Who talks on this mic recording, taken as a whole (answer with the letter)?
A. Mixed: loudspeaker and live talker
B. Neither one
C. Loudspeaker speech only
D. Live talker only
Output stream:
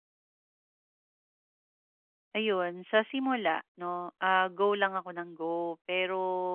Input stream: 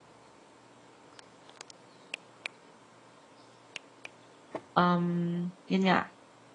D